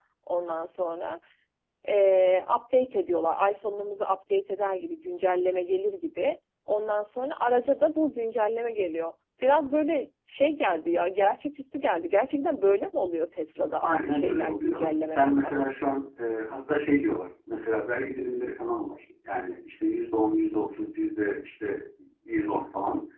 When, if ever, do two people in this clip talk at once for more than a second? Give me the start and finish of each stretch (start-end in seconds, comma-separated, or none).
13.8-15.6